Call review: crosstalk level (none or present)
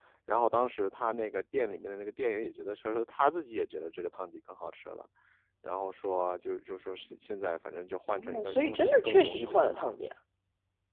present